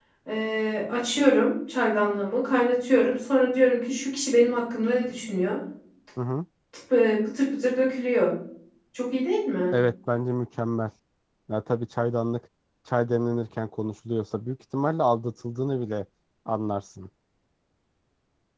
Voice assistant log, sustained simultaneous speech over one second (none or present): none